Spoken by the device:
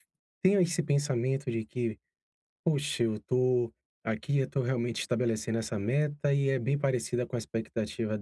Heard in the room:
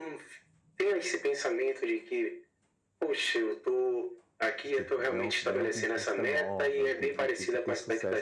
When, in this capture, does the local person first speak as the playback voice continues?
5 s

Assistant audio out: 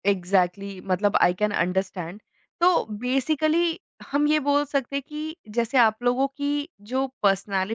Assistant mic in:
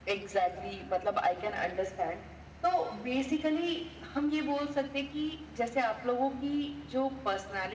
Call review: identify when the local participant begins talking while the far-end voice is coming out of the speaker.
none

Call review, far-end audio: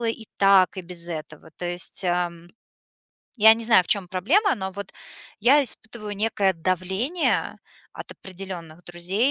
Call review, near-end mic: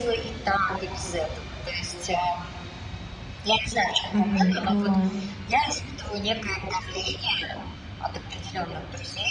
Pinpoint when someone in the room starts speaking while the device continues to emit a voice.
4 s

